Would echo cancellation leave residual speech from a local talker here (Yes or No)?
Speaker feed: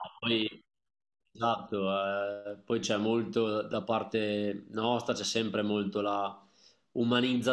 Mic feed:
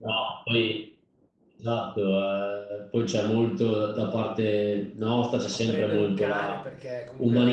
Yes